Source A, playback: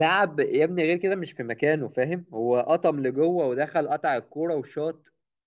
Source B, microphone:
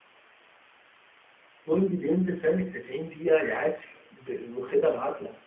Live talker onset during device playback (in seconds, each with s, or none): 1.7 s